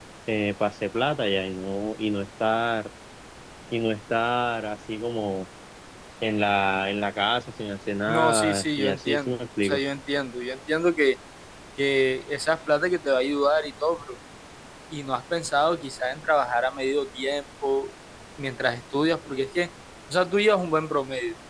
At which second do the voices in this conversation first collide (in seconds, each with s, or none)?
8.1 s